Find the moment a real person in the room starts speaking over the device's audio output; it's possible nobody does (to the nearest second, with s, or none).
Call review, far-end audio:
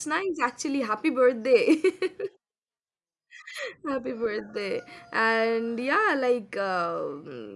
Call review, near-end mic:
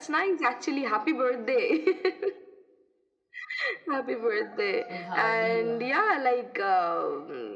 5 s